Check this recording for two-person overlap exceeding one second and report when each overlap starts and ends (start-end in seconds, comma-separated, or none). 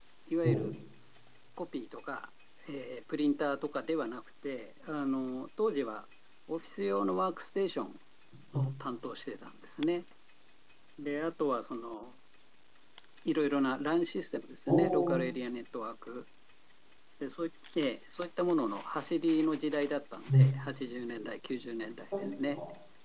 none